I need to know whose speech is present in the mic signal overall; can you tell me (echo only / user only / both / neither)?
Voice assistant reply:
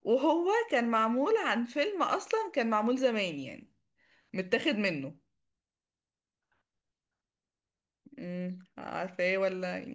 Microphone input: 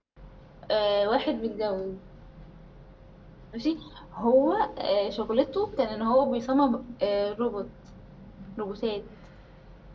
user only